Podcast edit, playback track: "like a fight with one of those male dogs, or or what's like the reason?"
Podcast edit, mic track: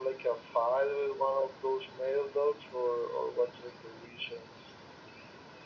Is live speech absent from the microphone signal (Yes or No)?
Yes